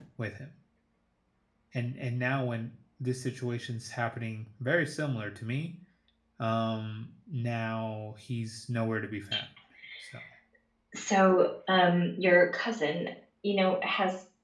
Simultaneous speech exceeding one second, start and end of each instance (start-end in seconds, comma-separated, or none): none